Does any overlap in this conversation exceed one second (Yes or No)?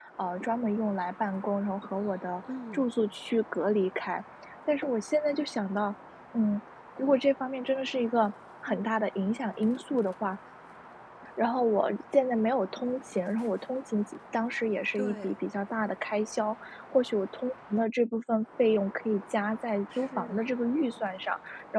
No